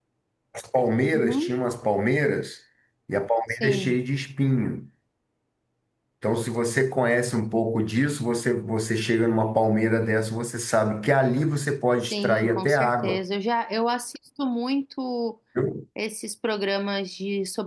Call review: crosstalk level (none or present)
present